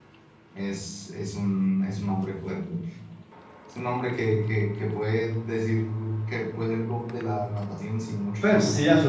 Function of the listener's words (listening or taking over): taking over